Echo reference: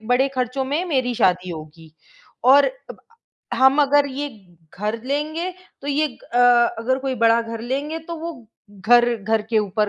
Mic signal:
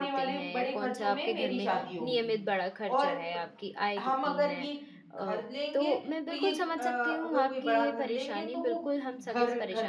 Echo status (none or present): present